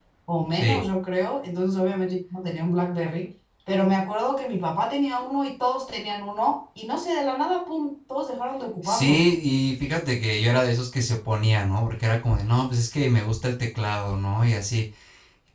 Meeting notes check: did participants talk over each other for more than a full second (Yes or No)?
No